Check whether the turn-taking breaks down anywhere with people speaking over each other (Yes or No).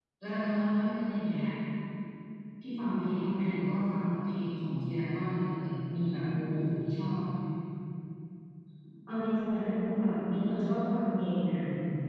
No